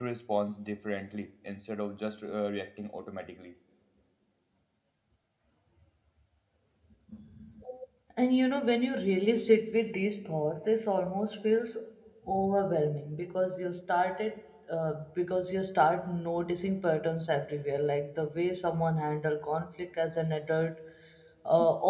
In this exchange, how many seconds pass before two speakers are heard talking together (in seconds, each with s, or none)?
none